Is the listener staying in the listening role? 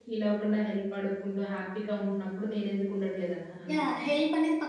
No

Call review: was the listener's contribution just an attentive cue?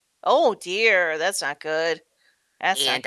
No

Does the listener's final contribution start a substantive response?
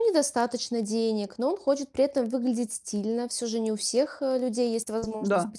No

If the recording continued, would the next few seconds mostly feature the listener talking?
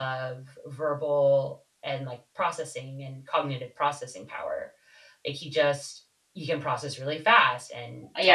Yes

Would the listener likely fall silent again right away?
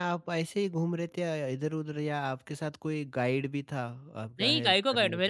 No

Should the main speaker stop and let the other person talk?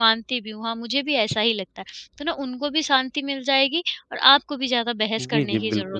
Yes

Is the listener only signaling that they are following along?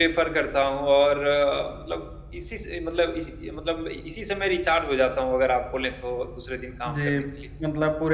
No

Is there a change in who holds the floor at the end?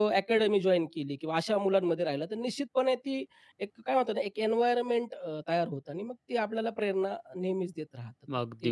Yes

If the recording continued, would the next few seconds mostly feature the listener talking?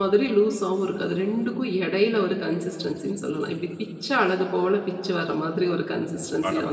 Yes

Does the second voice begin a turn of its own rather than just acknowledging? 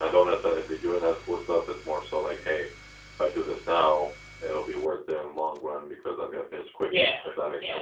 Yes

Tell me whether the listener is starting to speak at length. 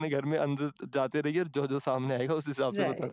Yes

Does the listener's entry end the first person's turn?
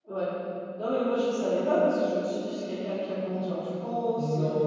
Yes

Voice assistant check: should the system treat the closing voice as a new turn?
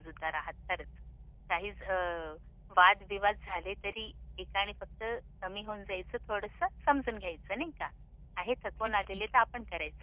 No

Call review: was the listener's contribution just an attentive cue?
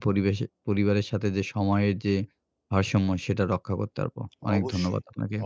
No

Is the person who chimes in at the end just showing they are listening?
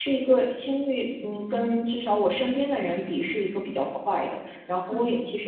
Yes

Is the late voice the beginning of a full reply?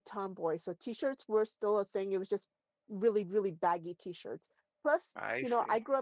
No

